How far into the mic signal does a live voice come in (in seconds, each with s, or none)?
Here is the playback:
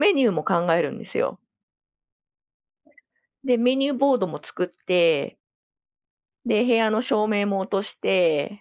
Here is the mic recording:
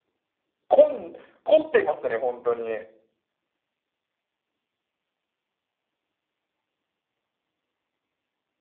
0.7 s